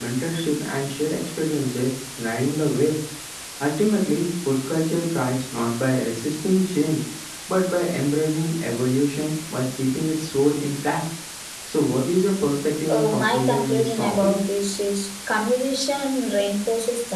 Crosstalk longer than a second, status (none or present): present